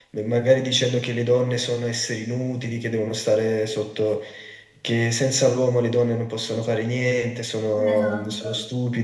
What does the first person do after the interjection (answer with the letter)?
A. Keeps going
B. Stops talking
A